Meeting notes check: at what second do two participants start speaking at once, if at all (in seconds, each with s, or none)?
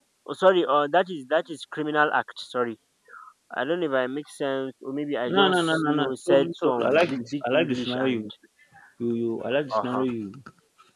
5.3 s